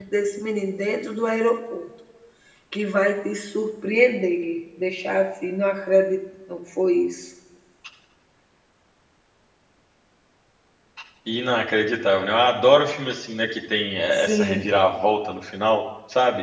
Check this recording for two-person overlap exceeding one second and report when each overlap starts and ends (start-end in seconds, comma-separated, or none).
none